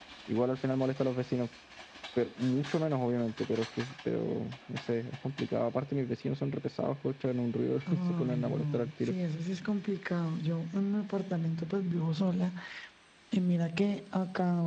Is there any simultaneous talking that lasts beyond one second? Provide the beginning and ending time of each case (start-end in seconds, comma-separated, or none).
7.9-9.1